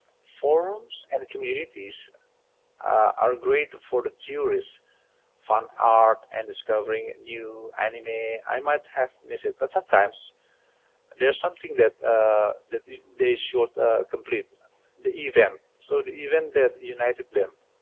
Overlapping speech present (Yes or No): No